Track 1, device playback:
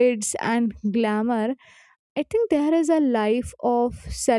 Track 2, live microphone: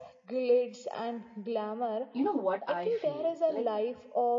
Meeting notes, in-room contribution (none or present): present